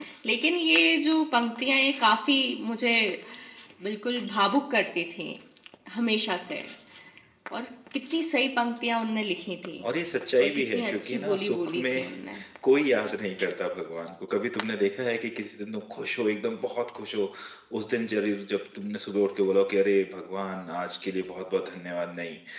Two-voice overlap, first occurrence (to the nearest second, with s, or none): 10 s